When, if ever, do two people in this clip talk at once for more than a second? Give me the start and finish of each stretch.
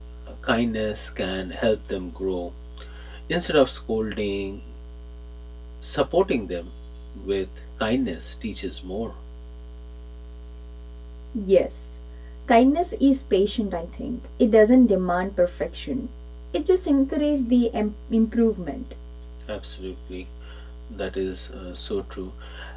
none

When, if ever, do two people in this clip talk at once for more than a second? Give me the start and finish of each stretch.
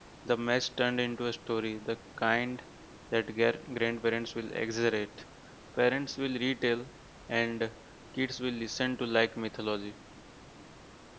none

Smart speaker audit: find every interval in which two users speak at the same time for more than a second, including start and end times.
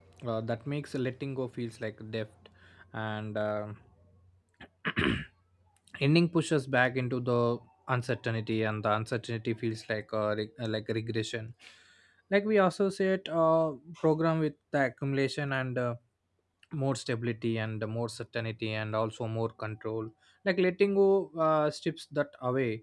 none

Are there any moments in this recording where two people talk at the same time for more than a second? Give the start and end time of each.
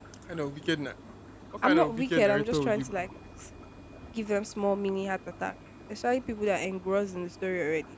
1.6-3.1

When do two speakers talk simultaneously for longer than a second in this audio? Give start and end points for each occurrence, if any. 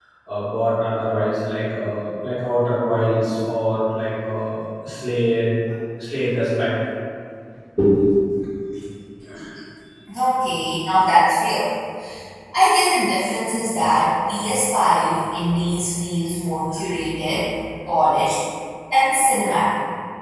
none

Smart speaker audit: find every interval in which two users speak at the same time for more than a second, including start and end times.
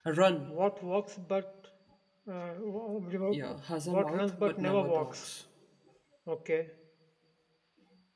3.8-5.3

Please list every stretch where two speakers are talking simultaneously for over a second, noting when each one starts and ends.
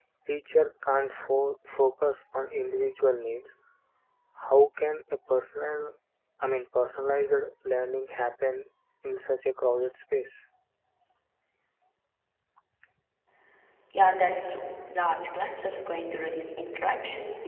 none

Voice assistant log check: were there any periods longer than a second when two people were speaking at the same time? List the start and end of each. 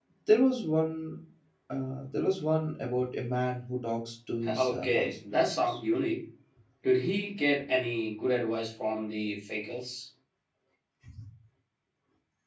4.5-5.8

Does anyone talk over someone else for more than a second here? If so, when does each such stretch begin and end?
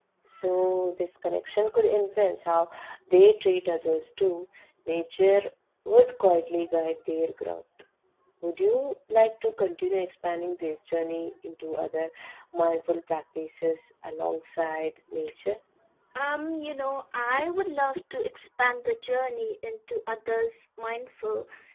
none

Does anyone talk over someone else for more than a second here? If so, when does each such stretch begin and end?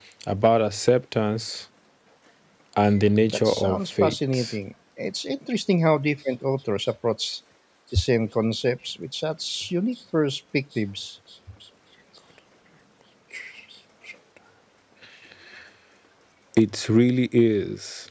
3.3-4.5

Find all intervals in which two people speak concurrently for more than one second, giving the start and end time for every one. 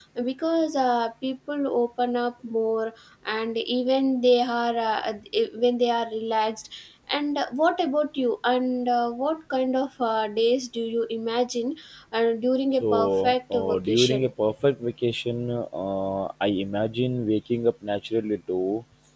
12.8-14.3

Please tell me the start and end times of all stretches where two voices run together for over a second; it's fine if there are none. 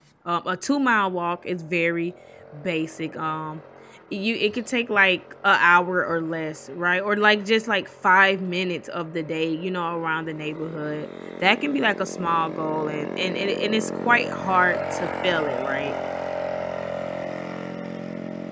none

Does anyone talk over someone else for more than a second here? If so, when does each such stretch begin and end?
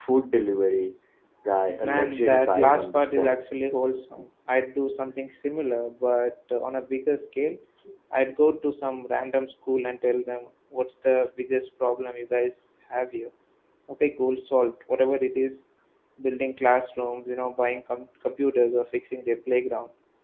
1.8-3.4

